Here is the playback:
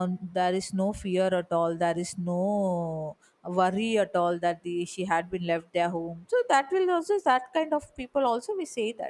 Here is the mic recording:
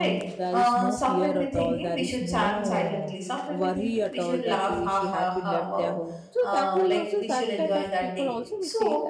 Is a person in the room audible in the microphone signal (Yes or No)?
Yes